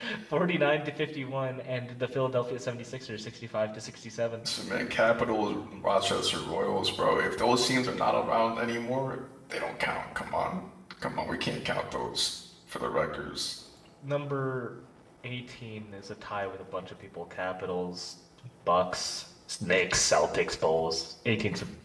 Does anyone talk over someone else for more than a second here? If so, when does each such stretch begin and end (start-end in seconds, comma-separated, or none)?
none